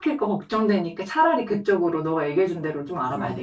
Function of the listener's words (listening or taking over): taking over